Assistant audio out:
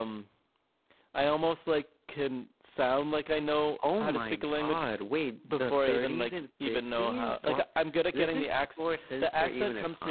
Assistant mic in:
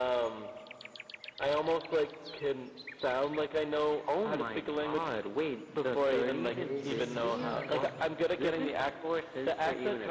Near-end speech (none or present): present